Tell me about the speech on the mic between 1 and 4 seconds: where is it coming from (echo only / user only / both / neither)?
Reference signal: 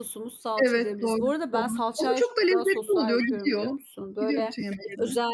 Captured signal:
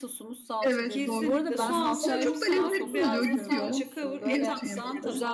both